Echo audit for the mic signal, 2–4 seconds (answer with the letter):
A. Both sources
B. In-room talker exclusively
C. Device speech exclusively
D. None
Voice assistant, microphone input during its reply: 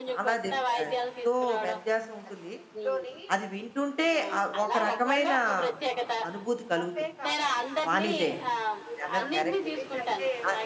A